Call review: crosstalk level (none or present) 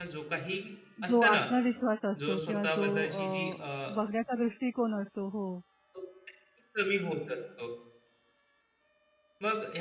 present